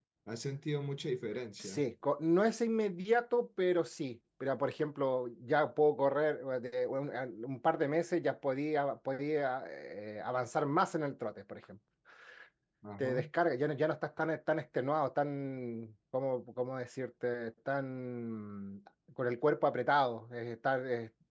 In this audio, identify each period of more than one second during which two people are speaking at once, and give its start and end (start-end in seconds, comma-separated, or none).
none